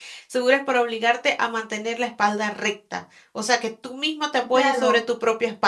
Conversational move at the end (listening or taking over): taking over